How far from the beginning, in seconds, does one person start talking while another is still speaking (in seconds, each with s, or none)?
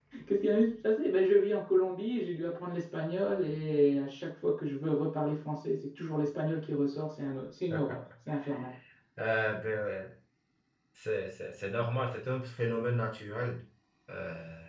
none